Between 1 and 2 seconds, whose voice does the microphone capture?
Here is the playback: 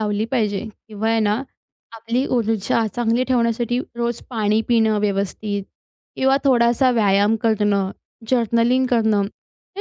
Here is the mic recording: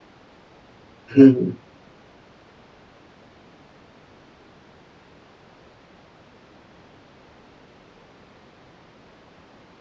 user only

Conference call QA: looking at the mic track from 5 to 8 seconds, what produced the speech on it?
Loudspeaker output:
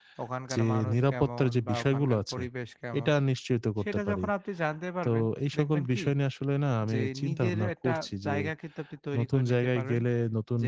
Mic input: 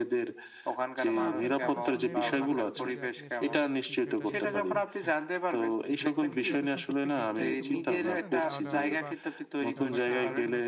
both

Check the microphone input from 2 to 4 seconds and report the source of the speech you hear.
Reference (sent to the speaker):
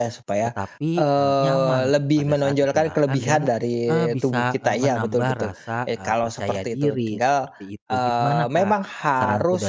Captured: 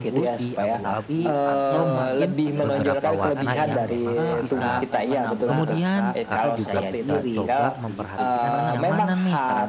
both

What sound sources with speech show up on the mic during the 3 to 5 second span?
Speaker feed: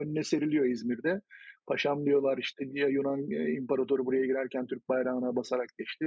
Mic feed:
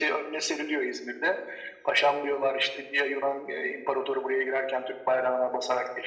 echo only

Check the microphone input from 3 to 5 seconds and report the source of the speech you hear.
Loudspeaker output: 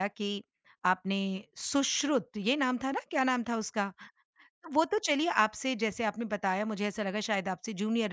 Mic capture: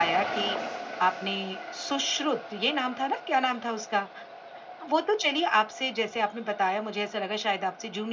echo only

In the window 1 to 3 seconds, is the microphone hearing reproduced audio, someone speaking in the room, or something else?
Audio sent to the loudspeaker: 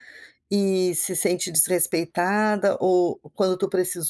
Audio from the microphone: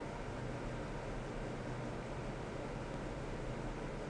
neither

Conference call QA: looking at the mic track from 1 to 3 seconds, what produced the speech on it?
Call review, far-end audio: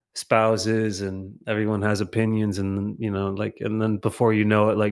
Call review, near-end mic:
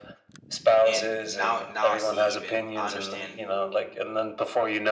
both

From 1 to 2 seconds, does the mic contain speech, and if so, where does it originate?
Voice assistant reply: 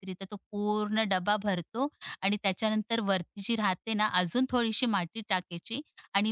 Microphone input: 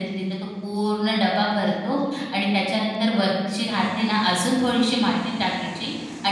echo only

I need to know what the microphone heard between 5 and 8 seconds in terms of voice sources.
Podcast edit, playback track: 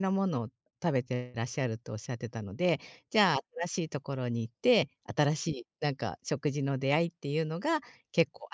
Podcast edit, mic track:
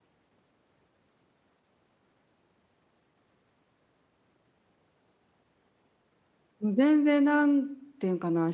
user only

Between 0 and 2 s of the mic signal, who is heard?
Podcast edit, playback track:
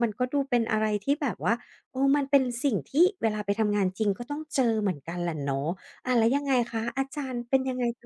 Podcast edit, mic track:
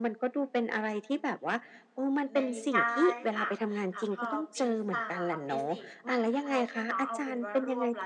echo only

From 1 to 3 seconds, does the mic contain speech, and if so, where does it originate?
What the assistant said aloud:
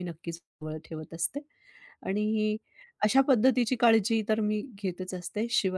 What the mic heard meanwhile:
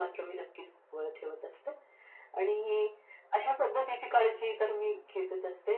echo only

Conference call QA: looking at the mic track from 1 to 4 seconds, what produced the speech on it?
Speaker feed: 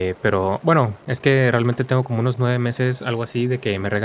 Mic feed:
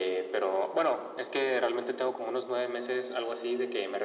echo only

